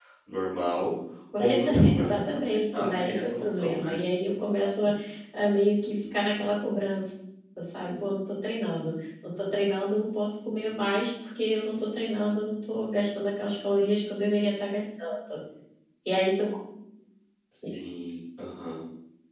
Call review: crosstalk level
present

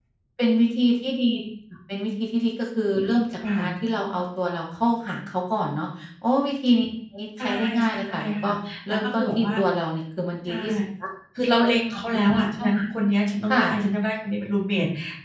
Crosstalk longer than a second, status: present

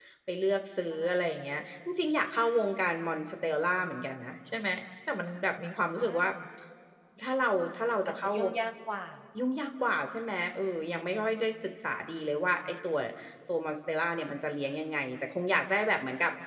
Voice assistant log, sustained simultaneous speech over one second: none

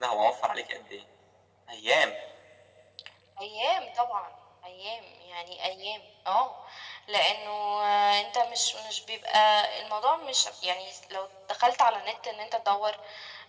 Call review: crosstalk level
none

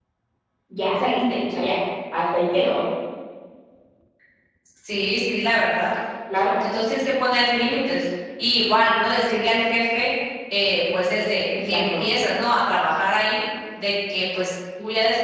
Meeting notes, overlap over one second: none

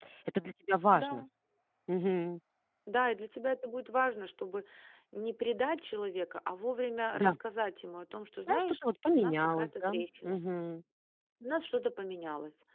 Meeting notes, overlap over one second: present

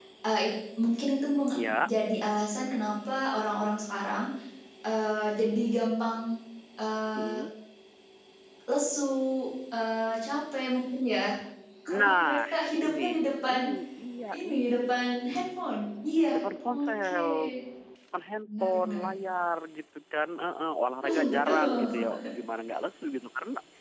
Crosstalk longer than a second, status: present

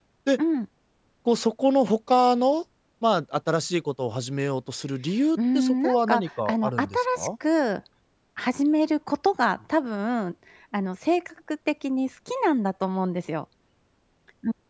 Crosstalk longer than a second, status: present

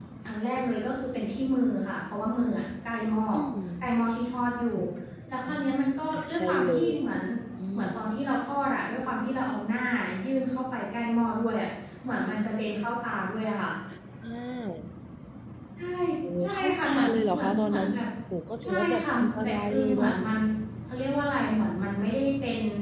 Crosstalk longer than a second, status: present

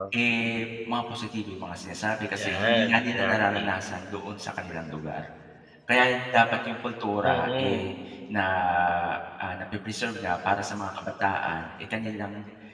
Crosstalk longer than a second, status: present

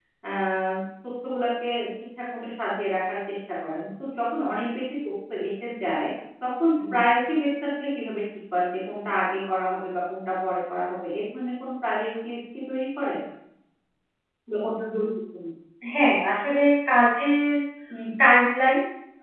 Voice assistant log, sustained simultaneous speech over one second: none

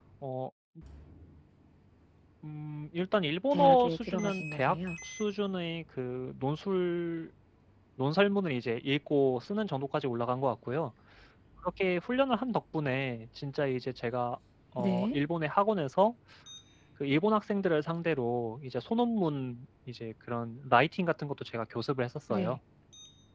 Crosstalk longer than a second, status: present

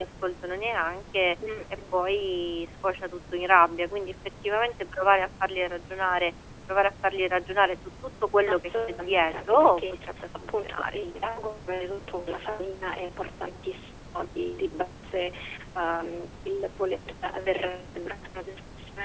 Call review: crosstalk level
present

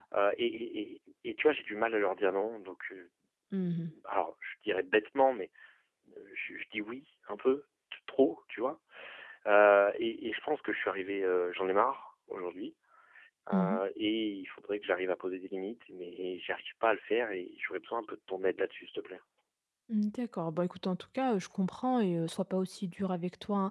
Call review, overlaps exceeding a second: none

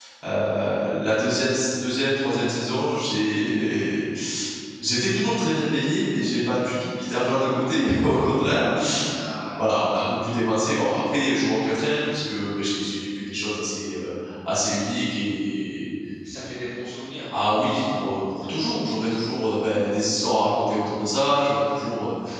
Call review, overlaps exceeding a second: none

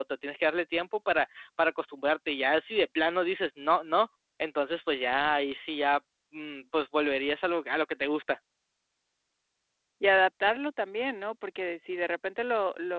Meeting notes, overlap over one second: none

